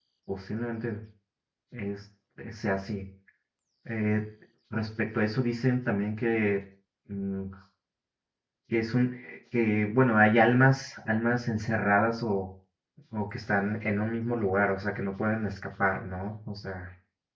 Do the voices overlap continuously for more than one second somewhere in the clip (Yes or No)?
No